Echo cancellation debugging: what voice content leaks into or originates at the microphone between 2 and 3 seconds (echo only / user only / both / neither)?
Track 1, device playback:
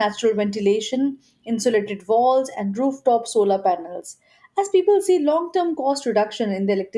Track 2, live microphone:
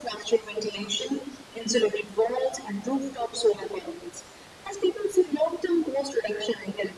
echo only